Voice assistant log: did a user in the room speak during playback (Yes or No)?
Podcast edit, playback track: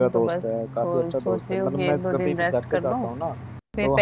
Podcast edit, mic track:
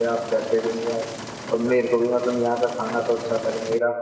Yes